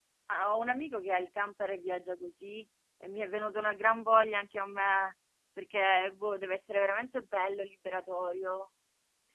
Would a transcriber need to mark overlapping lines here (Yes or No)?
No